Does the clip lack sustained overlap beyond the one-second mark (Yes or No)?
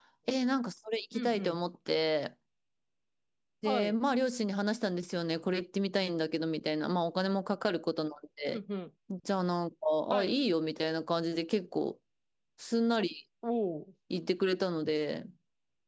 Yes